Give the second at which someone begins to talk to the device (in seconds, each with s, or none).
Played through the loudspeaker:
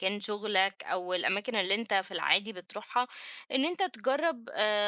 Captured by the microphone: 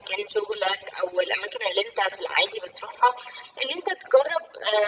none